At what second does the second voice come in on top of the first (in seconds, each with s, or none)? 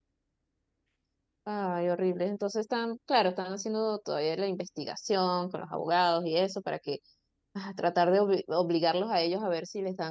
none